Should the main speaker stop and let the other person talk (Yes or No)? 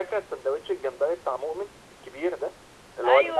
Yes